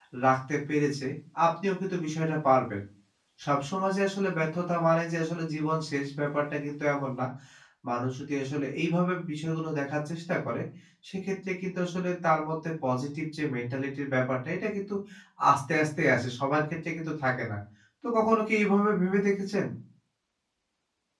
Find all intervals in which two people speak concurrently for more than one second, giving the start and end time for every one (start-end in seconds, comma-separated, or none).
none